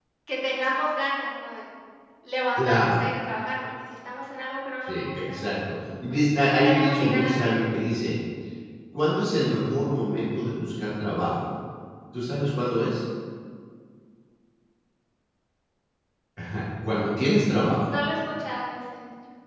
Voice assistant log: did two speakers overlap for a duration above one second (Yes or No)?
Yes